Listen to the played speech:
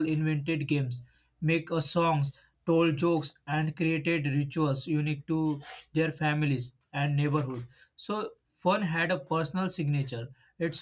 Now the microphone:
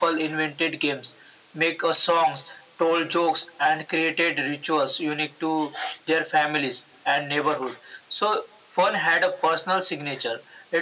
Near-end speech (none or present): none